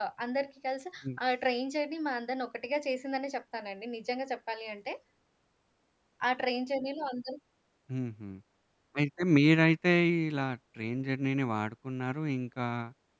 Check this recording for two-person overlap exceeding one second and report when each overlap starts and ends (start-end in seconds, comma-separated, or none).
none